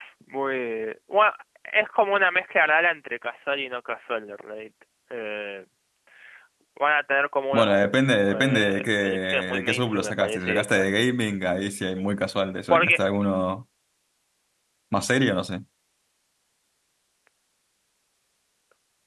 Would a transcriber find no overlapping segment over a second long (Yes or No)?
No